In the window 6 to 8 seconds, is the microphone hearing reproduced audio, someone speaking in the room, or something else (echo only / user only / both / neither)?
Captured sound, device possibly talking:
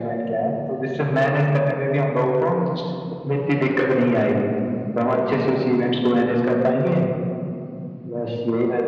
echo only